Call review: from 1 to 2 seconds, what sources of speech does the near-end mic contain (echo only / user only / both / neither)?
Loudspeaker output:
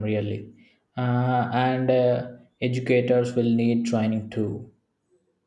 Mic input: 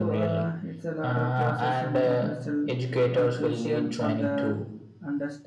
both